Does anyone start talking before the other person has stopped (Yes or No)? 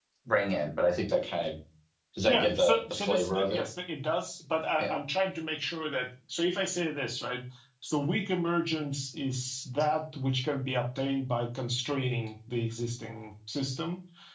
Yes